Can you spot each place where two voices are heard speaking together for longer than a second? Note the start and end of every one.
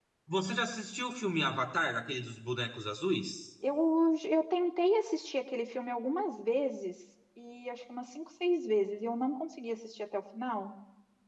none

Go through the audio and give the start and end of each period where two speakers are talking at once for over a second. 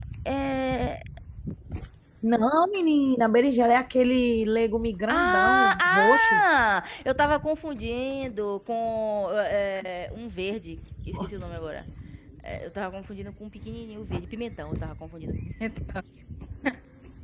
5.1-6.4

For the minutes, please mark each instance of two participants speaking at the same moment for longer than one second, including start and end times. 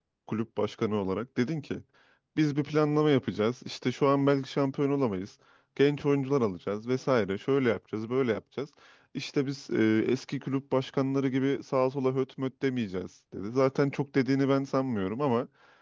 none

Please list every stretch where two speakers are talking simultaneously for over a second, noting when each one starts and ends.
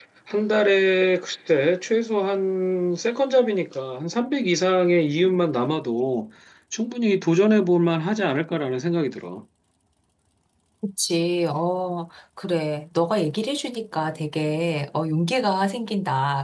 none

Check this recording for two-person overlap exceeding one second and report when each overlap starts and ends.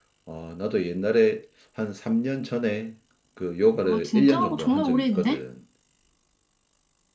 3.8-5.3

